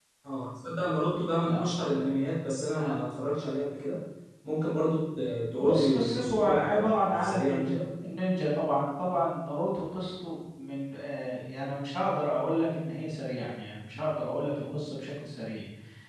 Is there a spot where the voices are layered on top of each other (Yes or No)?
Yes